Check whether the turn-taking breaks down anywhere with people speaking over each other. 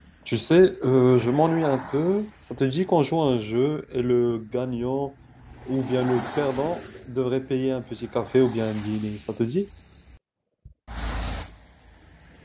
No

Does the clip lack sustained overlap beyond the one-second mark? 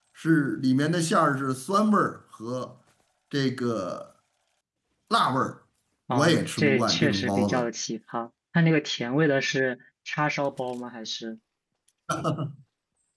No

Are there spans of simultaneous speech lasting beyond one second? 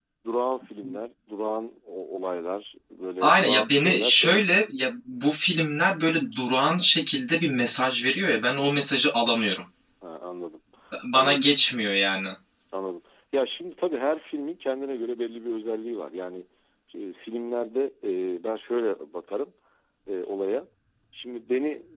Yes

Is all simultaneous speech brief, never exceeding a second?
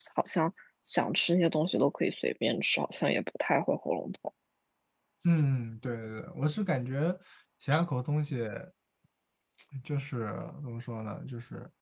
Yes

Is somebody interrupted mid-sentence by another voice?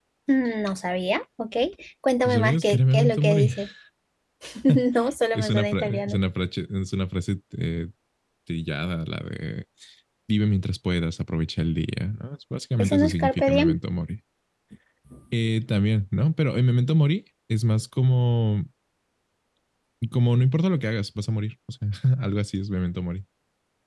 Yes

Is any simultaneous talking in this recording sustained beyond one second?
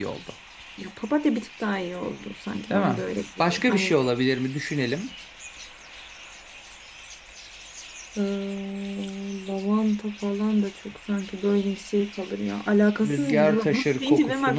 Yes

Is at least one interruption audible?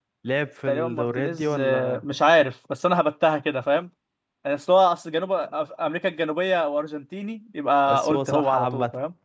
Yes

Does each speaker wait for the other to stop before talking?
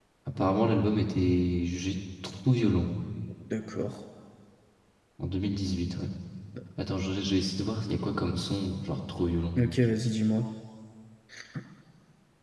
Yes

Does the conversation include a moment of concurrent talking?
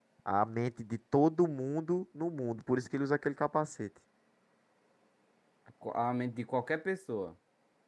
No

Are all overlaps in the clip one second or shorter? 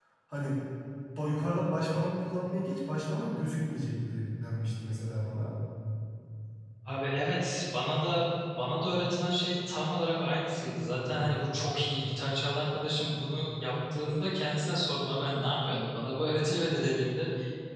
Yes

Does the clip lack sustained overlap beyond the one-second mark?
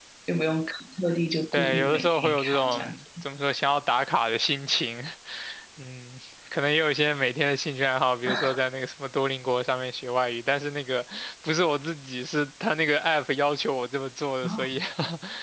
No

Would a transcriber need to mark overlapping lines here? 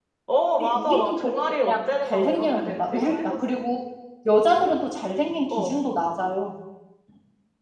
Yes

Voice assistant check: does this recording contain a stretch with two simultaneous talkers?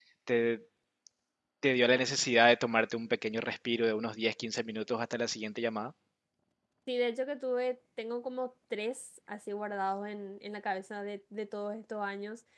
No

